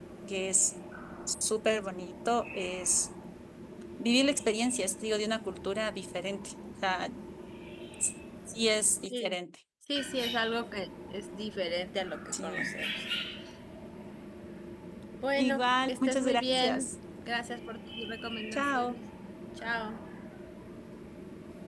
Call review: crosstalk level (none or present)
present